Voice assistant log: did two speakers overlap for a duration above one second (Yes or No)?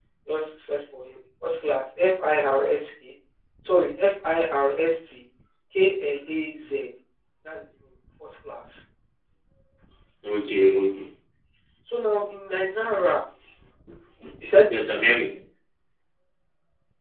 No